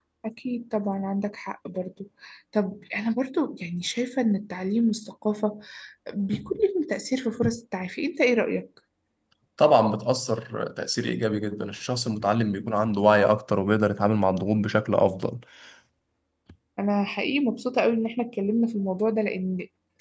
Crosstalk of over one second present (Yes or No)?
No